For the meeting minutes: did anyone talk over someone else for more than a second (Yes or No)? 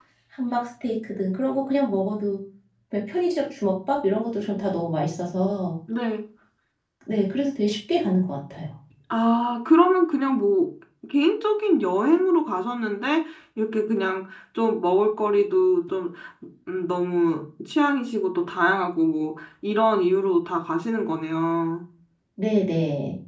No